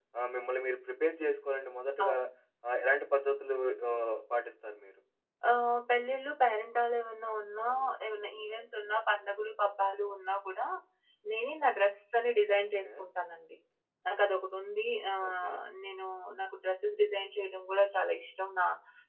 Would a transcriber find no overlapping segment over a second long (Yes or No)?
Yes